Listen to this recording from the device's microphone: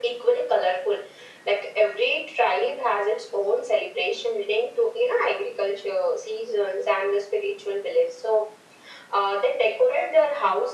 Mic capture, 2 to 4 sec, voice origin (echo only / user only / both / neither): echo only